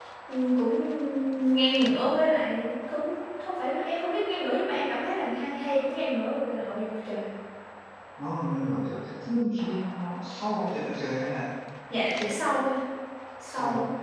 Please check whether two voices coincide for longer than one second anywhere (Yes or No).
No